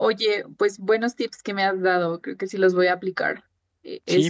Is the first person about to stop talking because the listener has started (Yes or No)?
Yes